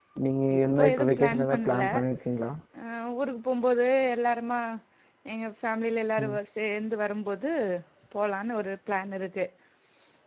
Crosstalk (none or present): present